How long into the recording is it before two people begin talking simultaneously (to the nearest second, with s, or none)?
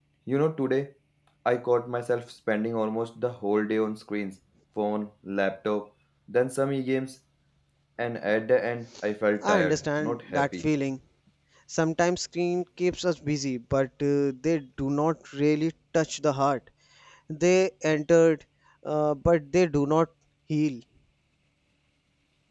9 s